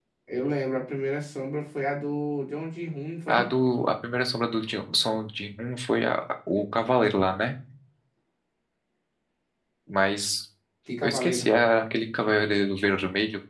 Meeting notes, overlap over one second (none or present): none